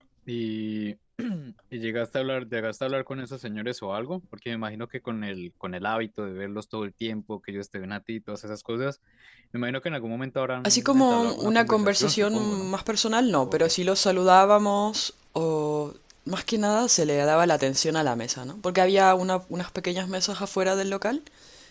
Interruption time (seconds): 10.6 s

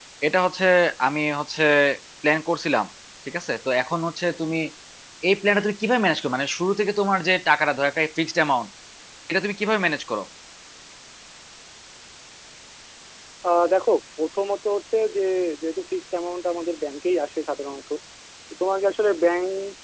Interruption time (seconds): none

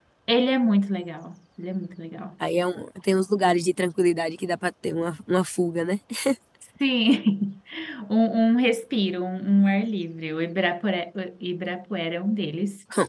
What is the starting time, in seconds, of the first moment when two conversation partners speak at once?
none

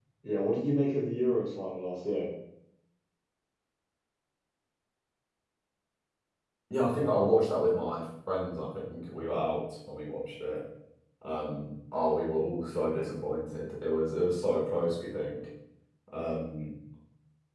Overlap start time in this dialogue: none

